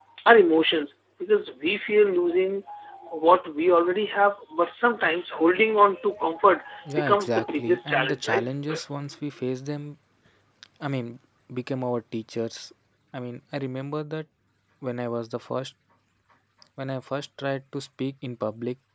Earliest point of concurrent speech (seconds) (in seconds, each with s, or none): 6.9 s